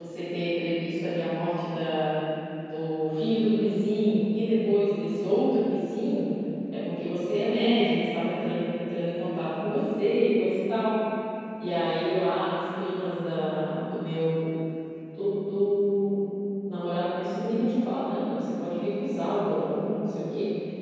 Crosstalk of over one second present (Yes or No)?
No